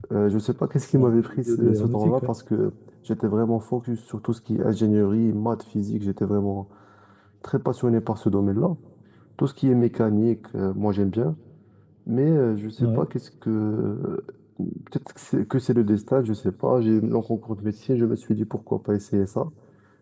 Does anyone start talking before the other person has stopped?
Yes, from 0.9 s

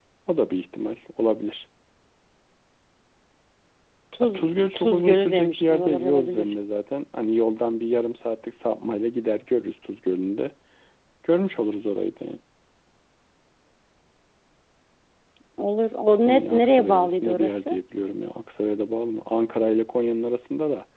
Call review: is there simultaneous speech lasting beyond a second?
Yes, from 4.2 s

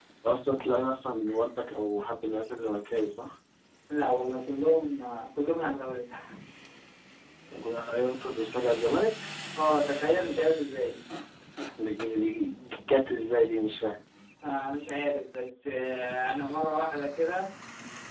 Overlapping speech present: No

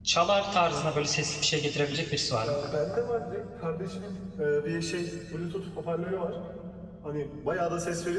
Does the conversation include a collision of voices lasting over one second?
No

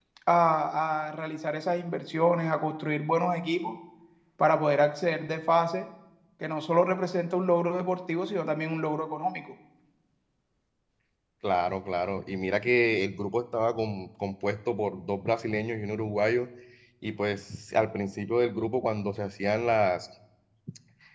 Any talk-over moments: No

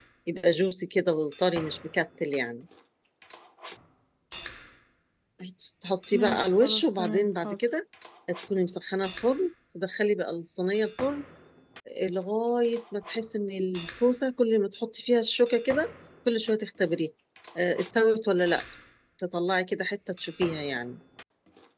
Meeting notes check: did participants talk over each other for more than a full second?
Yes, from 6.1 s

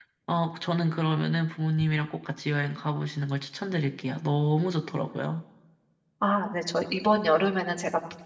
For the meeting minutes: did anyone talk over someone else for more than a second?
No

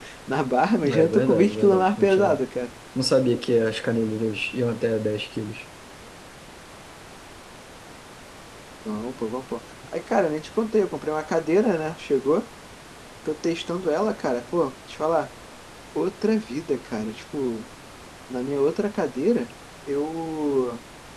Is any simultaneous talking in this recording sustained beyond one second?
Yes, from 0.8 s

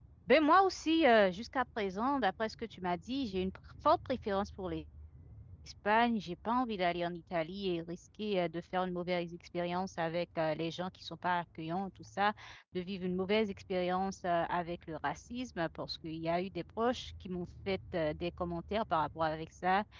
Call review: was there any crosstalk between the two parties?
No

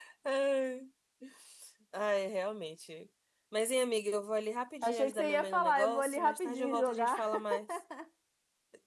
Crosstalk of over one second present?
Yes, from 4.8 s

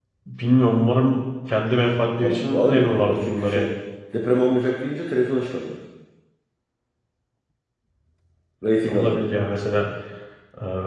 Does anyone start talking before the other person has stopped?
Yes, from 2.2 s

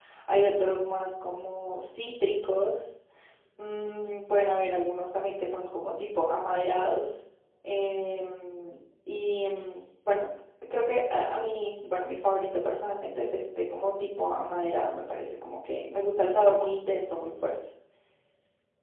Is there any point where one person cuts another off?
No

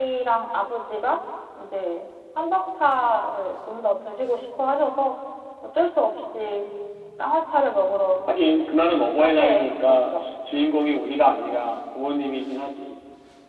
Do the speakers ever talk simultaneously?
Yes, from 9.0 s

